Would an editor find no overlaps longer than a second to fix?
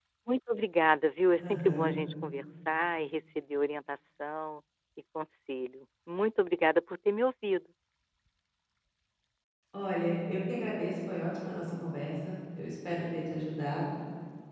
Yes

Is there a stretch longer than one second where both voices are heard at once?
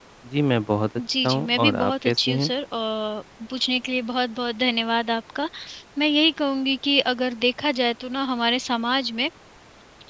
Yes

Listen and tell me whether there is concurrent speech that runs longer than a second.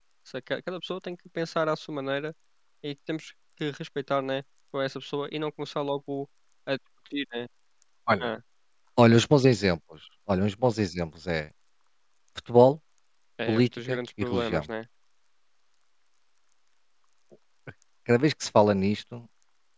Yes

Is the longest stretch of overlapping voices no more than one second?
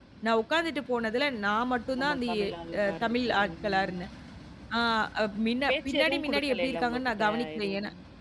No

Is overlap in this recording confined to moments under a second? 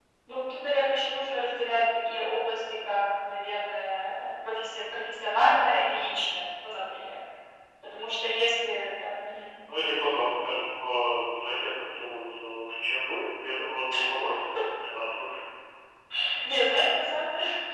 Yes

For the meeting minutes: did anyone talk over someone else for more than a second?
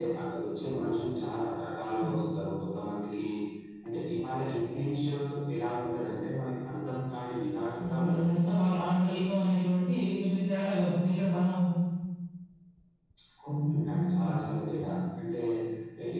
Yes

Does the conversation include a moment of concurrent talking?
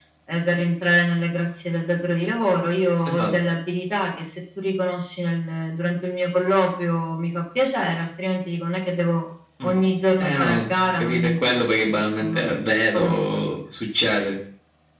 Yes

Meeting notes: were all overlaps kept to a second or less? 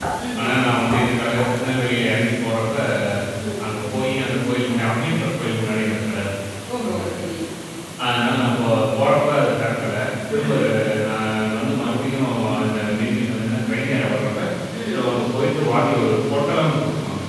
Yes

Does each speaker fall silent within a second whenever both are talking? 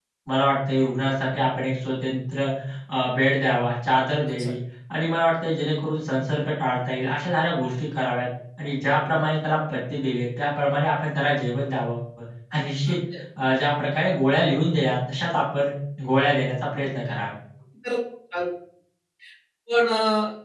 Yes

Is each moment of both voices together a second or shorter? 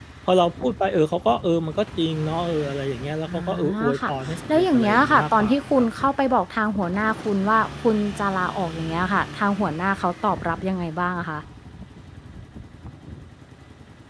No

